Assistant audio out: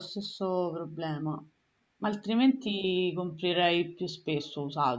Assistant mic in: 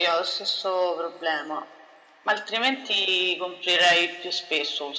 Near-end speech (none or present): none